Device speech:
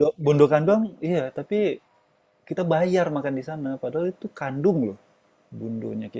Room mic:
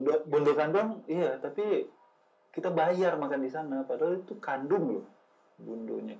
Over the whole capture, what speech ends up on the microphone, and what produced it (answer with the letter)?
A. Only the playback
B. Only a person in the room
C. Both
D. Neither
A